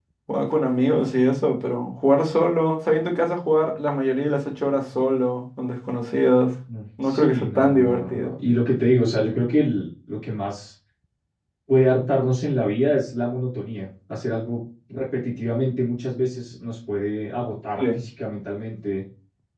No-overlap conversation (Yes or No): No